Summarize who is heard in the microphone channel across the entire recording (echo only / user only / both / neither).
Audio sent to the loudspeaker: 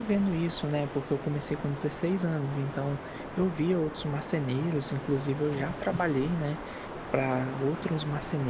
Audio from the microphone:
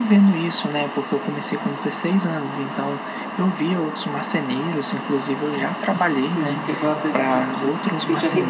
both